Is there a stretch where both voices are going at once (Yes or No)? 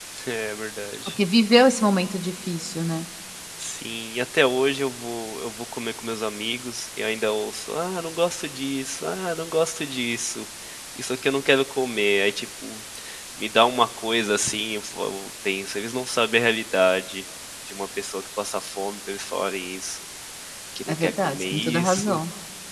Yes